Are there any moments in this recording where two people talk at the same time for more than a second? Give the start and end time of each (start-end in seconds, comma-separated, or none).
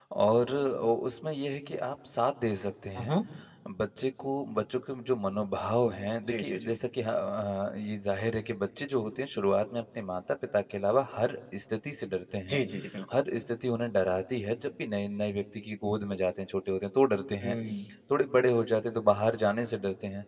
none